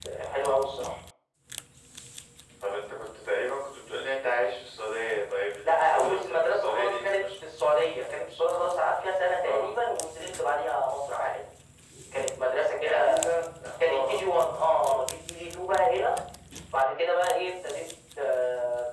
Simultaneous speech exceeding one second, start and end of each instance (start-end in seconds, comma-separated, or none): 5.6-7.2